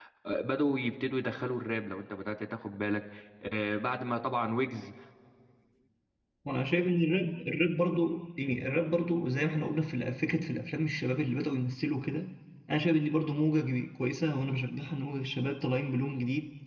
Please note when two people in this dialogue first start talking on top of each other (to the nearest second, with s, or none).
none